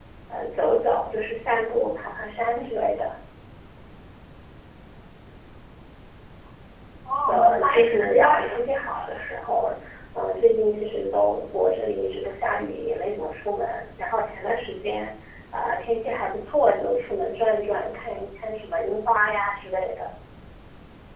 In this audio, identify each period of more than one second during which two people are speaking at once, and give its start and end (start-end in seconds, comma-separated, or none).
7.3-8.6